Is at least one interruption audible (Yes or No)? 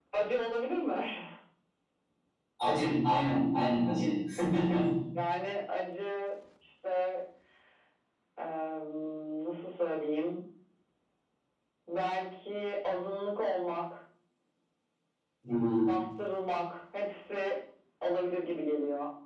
No